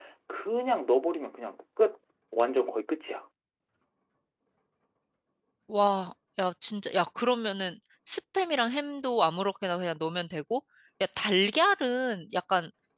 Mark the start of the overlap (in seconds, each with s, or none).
none